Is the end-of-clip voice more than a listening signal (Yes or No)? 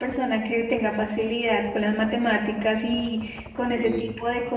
No